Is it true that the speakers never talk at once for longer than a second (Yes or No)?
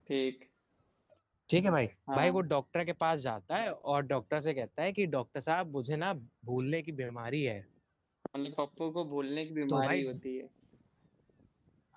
Yes